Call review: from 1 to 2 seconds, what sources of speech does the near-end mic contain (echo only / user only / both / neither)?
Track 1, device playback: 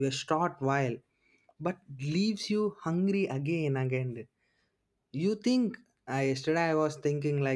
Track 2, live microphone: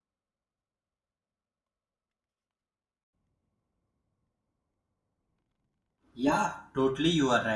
neither